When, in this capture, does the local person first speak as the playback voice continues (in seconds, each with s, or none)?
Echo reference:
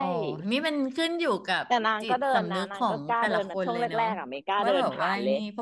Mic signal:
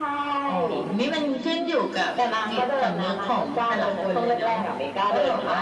none